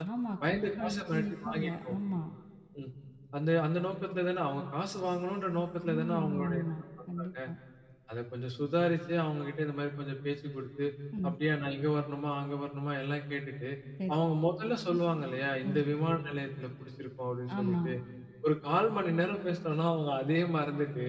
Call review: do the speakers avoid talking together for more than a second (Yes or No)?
No